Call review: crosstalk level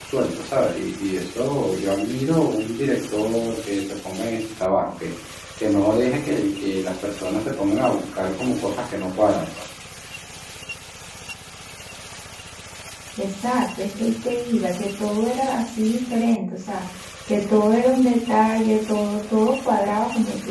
none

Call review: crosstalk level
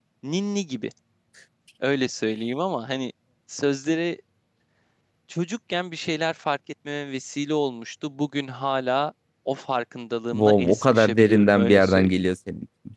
present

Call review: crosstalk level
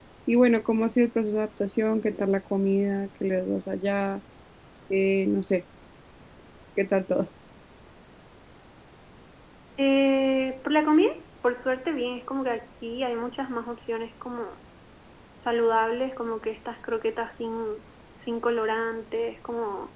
none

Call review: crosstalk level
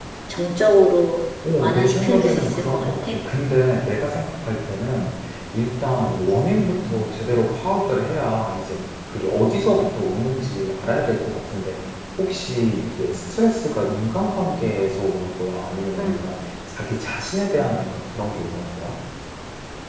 present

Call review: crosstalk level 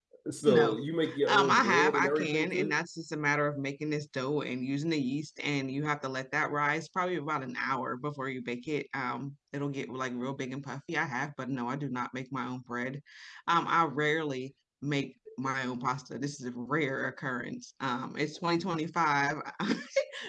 present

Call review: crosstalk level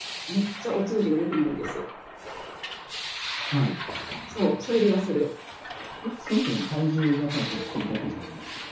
none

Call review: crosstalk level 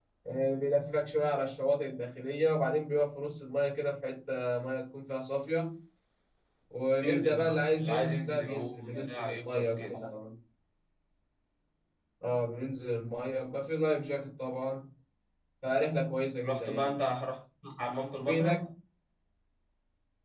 present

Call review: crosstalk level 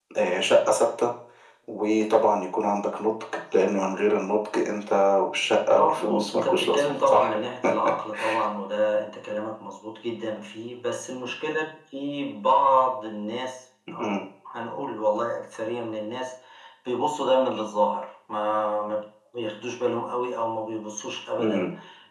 present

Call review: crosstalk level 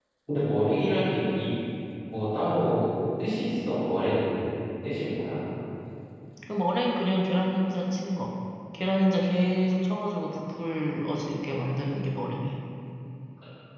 none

